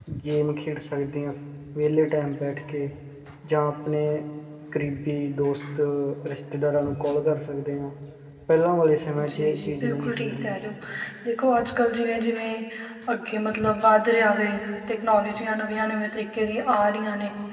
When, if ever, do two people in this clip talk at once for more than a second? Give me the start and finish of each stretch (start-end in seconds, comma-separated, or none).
9.3-10.6